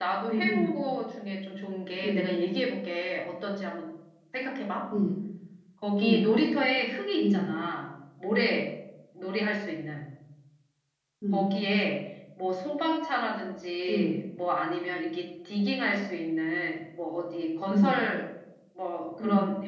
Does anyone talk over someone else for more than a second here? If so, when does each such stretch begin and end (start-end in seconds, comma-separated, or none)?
none